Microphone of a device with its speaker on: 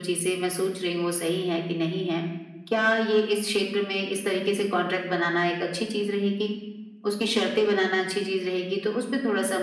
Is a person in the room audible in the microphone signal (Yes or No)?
No